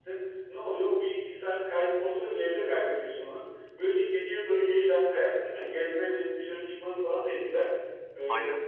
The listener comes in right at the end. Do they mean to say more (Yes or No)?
No